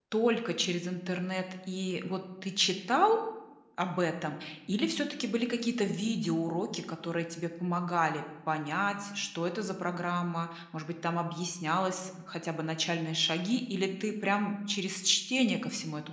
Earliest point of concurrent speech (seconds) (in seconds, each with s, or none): none